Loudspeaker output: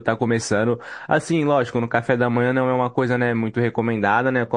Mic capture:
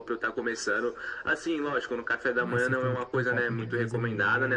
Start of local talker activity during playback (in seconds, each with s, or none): 2.4 s